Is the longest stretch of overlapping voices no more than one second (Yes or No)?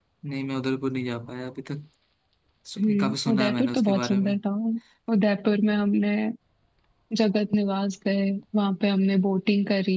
No